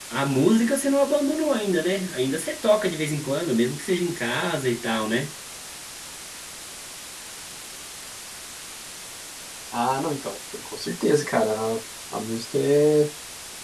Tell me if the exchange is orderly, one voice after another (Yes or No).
Yes